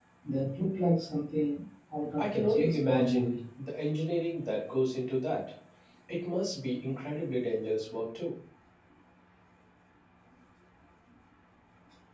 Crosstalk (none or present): present